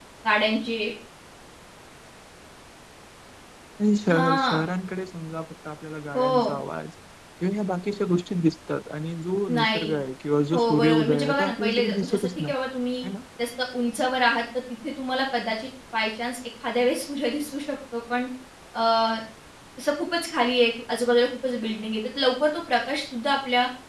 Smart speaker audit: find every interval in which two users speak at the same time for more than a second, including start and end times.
10.5-12.5

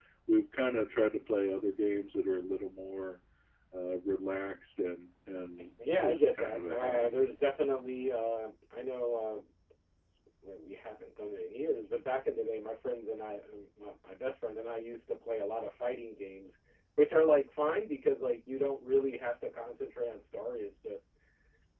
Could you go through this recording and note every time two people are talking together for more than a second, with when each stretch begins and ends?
6.0-7.2

